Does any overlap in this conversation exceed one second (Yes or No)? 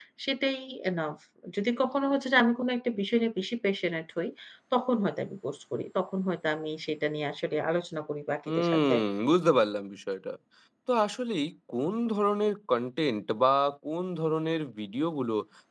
No